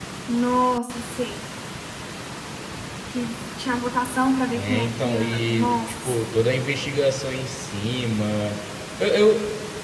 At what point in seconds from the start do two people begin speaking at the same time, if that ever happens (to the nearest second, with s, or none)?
5 s